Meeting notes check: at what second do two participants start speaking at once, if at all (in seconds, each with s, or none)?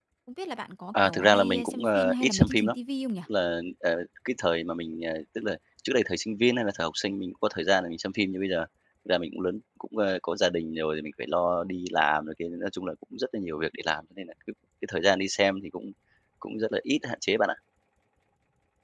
1.0 s